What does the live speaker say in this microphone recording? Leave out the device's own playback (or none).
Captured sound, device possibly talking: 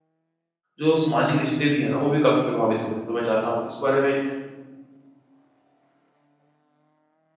जो सामाजिक रिश्ते भी हैं ना वो भी काफ़ी प्रभावित हो रहे हैं तो मैं चाहता हूँ इस बारे में